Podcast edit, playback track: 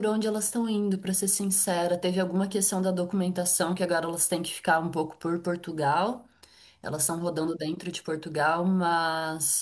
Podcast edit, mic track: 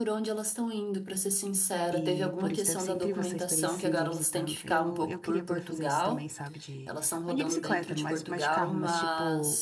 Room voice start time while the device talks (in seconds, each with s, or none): 1.9 s